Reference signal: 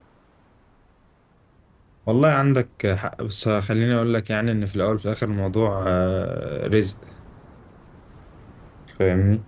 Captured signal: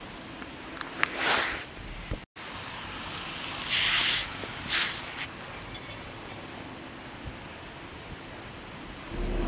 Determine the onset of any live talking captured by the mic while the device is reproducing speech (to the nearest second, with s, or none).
none